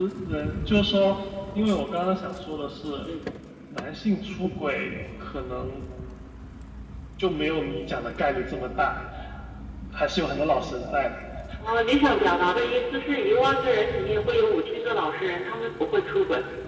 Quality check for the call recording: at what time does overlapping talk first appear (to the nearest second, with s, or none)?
none